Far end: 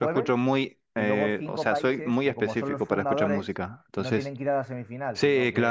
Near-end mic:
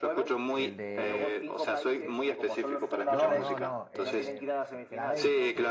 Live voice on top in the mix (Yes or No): No